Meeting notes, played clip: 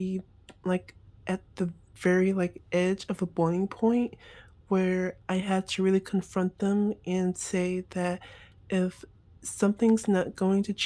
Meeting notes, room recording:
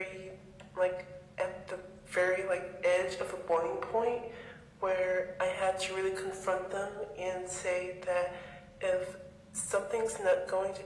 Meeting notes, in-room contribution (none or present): none